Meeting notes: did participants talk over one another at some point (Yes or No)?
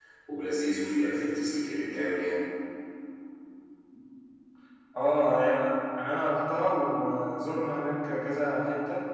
No